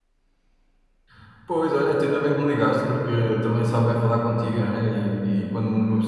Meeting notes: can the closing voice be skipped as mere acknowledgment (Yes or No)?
Yes